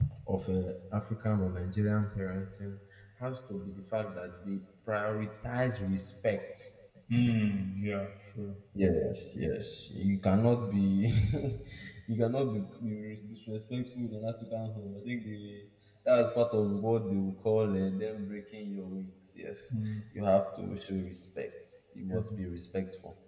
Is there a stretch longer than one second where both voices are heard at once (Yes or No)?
No